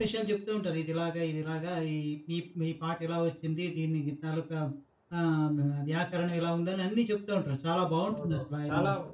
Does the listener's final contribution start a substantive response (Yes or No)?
Yes